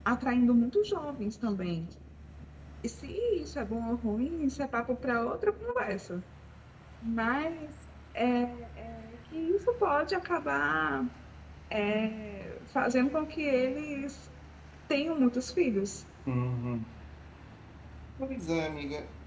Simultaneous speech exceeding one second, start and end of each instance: none

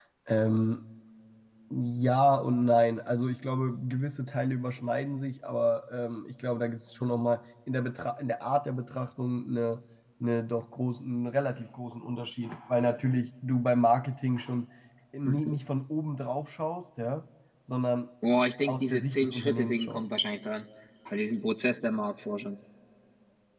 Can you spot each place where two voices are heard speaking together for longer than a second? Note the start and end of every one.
18.7-20.1

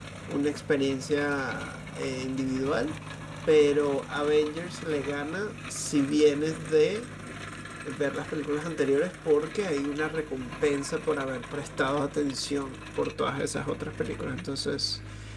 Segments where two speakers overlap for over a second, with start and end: none

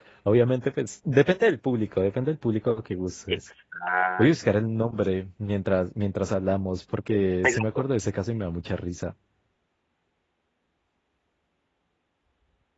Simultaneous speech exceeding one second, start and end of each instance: none

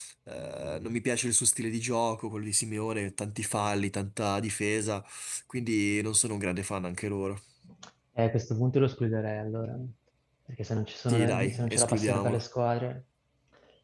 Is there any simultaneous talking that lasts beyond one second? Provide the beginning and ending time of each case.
11.1-12.4

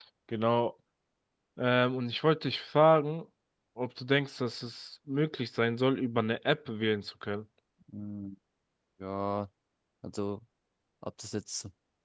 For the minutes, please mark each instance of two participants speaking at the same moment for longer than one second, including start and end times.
none

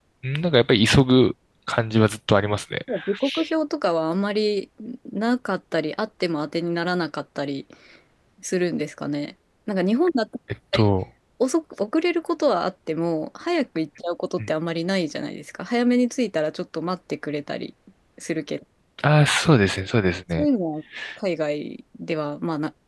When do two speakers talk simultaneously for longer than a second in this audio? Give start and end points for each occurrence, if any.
none

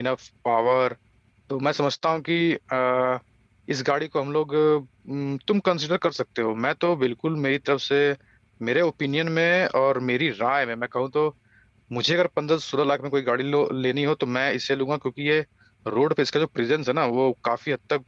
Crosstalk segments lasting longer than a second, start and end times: none

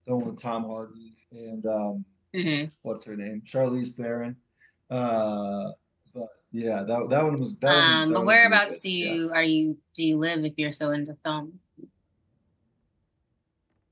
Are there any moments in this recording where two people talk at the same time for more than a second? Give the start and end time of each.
7.7-9.2

